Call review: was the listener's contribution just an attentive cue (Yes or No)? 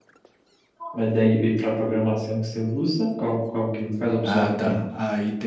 No